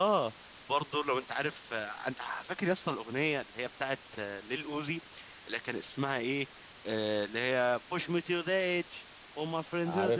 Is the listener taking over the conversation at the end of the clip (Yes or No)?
No